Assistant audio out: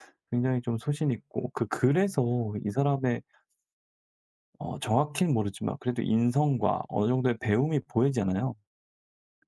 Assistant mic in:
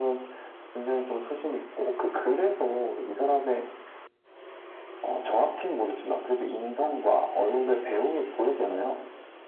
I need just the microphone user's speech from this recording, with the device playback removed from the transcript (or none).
none